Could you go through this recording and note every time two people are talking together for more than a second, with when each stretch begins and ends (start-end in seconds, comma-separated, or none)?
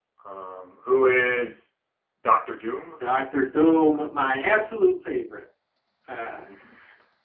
none